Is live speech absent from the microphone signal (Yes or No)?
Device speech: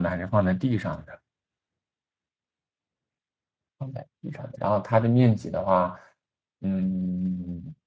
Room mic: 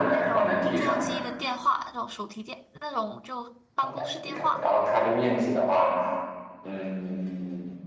No